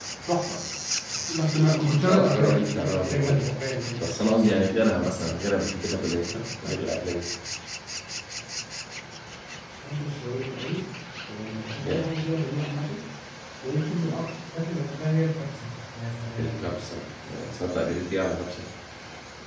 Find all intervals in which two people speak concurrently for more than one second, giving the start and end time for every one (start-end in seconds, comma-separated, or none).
2.1-3.5